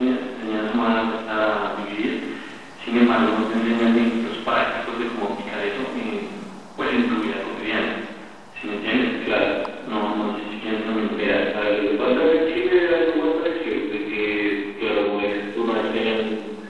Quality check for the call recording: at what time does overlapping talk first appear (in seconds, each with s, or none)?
none